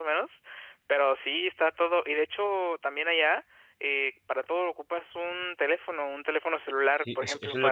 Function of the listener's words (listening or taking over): taking over